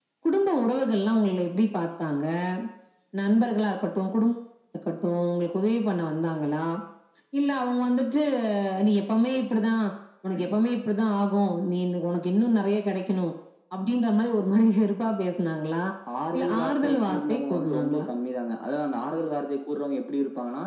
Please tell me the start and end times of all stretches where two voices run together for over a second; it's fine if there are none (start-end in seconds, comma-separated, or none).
16.4-18.0